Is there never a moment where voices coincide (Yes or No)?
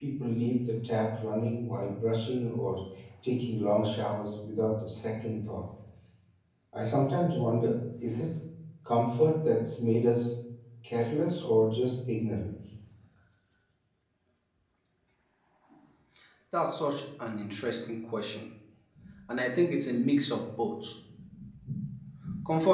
Yes